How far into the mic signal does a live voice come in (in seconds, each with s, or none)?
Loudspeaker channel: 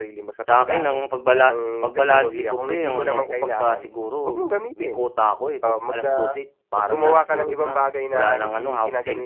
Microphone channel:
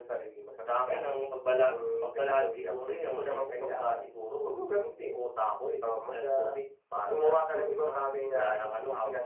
none